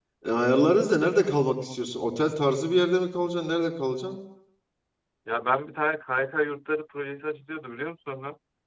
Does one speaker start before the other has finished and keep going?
No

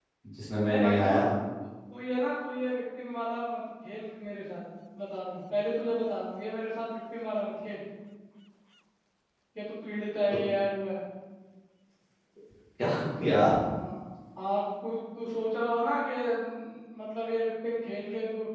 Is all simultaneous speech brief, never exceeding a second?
Yes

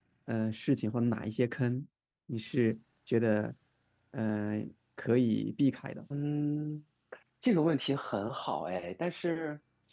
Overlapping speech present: No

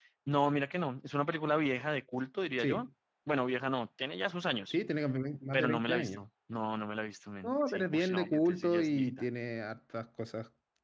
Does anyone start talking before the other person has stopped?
Yes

